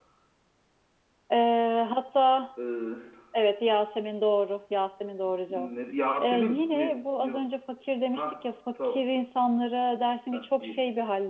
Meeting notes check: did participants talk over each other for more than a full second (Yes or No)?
Yes